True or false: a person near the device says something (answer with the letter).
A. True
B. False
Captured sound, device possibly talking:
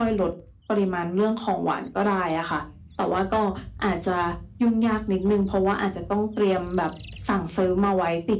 B